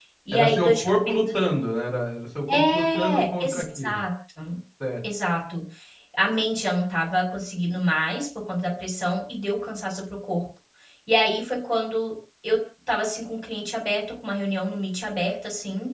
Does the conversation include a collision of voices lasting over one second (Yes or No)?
Yes